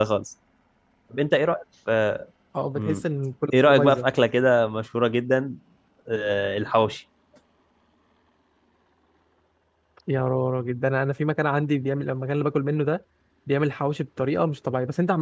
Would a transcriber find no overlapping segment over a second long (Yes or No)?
Yes